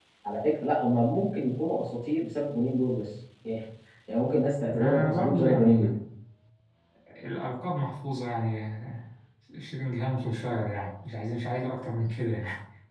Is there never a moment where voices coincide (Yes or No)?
No